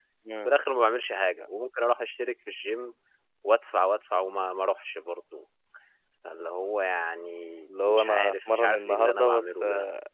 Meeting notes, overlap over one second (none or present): present